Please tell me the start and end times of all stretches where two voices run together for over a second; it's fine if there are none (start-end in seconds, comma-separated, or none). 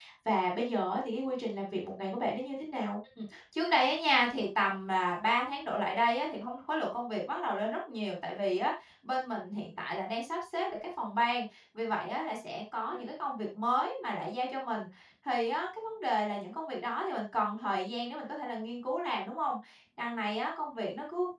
none